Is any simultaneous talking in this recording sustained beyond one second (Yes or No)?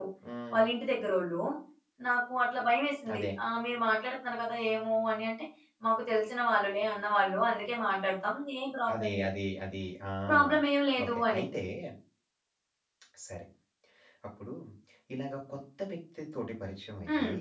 No